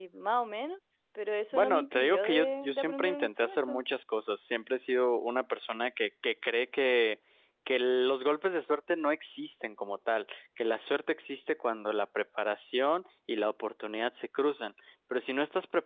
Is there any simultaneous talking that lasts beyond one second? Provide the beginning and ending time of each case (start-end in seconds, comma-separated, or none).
1.5-3.8